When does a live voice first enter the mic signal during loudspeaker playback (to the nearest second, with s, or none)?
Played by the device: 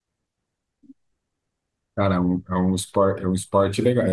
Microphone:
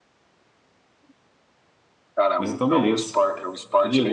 2 s